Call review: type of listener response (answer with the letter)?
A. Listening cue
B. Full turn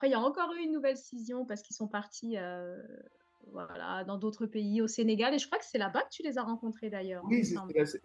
B